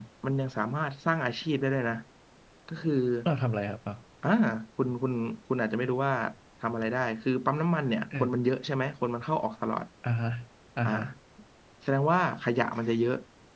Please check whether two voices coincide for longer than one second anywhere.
No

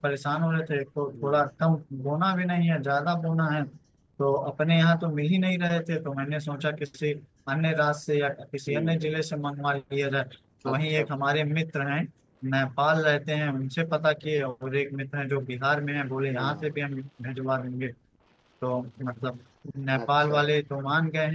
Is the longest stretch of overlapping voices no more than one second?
Yes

